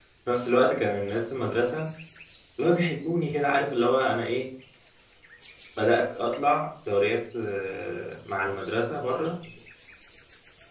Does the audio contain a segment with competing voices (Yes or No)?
No